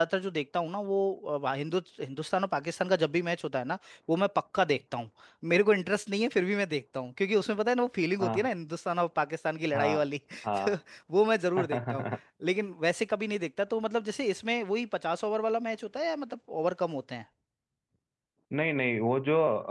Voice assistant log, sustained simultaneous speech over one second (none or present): none